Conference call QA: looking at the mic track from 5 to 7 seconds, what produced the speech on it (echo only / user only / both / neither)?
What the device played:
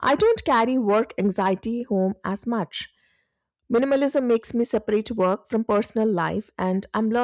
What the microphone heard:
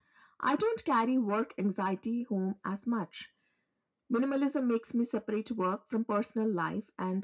echo only